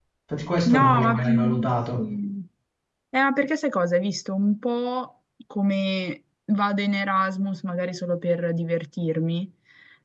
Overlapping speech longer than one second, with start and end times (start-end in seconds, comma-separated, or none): 0.7-2.0